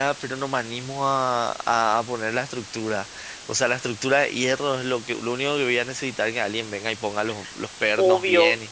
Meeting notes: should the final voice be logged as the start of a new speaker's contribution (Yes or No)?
Yes